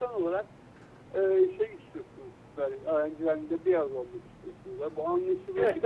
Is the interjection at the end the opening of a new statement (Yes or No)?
Yes